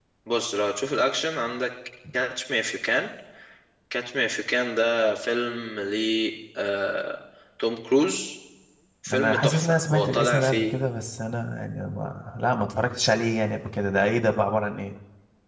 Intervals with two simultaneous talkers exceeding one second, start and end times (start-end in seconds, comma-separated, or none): 9.1-10.8